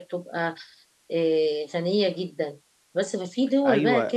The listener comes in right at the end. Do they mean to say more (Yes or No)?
Yes